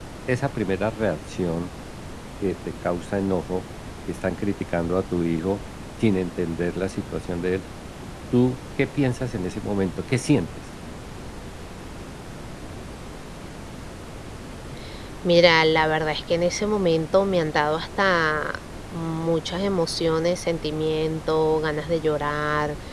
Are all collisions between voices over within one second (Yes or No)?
Yes